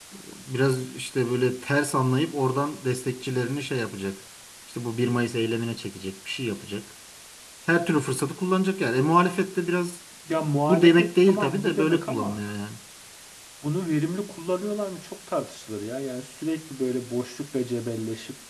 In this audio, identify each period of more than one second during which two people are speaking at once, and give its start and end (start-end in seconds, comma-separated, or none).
10.3-12.4